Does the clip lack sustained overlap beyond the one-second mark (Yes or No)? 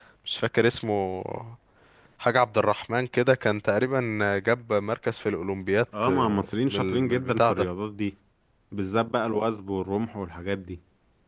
No